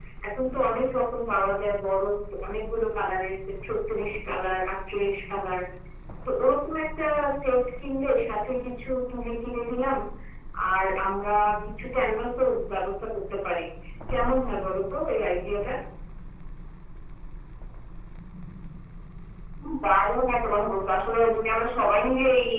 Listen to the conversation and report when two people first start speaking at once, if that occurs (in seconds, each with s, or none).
none